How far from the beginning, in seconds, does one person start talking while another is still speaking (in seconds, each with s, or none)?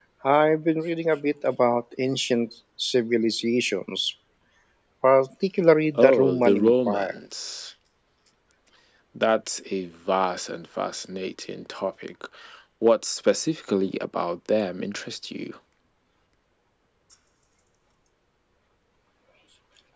6.0 s